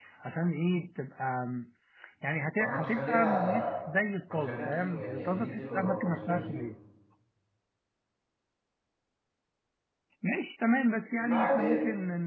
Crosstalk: present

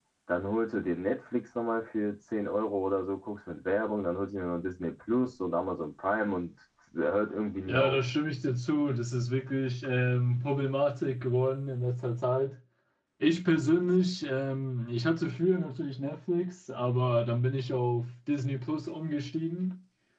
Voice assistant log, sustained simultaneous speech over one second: none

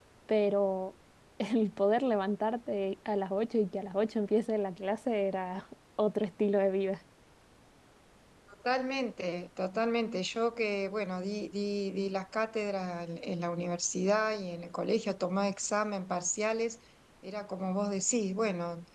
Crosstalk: none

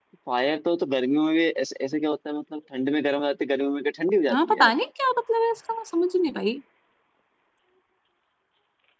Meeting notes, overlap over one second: none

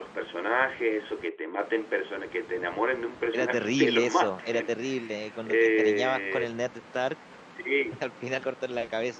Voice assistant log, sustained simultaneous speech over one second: present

